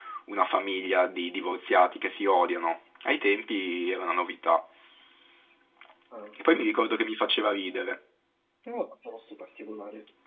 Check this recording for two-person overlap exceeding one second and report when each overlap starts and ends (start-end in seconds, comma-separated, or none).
none